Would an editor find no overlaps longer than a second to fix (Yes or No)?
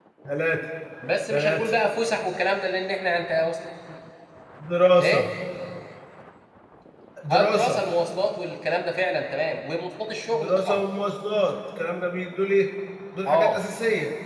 Yes